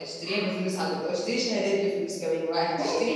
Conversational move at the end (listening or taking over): taking over